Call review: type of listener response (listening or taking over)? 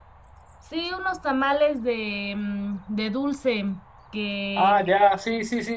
taking over